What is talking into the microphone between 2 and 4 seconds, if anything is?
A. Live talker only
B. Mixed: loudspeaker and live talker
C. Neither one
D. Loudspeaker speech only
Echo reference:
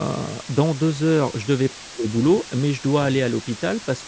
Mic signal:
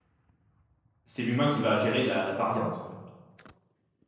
A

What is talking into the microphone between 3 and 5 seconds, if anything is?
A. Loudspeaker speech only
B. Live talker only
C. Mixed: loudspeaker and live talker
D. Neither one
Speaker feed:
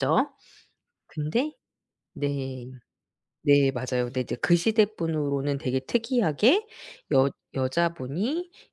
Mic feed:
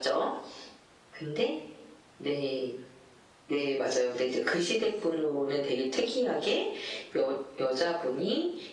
A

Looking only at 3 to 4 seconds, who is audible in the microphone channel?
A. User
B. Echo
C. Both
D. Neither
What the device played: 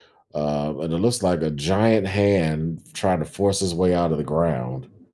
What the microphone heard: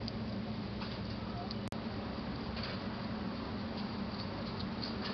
D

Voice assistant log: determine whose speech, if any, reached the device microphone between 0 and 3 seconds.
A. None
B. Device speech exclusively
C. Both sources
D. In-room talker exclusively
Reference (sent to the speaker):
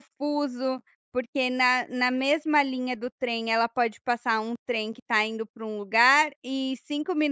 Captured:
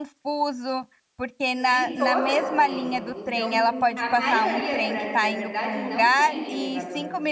C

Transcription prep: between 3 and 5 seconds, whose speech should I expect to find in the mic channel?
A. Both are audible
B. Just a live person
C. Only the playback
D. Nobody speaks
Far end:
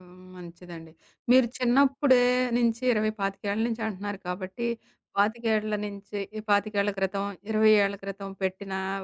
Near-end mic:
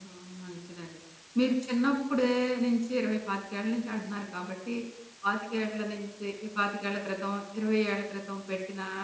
C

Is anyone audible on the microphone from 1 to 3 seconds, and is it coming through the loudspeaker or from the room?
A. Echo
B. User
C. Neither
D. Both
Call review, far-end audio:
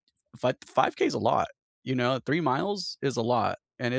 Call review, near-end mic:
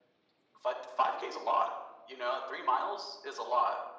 A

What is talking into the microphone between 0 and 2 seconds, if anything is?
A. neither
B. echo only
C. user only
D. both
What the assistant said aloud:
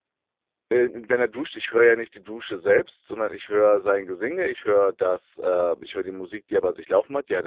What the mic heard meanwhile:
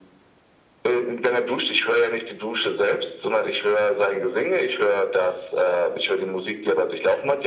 B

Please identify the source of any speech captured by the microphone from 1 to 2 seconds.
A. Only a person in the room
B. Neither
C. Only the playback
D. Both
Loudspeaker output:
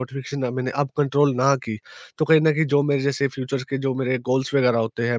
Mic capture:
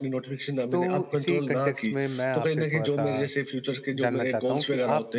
D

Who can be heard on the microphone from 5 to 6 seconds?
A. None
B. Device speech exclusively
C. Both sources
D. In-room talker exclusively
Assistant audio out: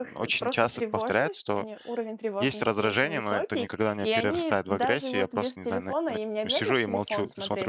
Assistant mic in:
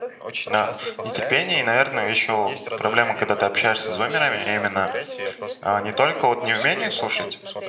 C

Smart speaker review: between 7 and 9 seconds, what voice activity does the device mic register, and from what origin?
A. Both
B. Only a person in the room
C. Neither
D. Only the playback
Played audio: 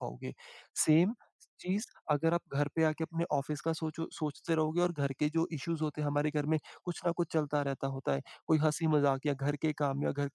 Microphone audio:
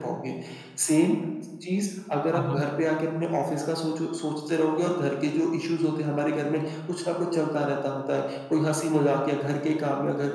D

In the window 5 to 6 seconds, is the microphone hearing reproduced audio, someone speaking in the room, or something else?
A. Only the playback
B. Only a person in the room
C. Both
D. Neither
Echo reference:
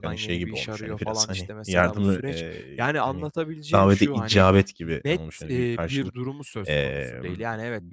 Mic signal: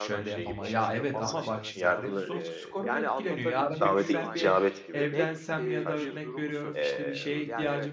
C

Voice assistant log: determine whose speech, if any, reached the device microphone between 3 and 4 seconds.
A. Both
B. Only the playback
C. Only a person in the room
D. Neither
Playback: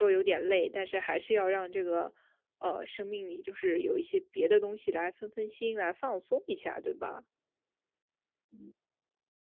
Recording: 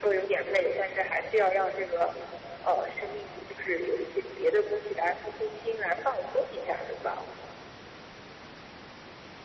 B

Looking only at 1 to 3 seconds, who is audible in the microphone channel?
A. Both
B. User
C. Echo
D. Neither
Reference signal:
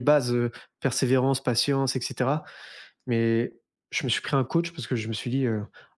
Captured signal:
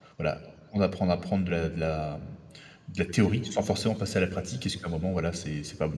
B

